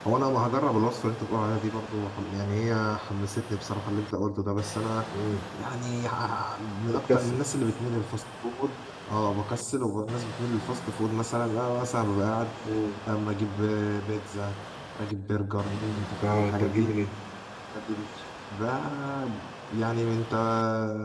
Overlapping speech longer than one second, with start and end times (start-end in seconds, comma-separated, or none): 15.7-16.9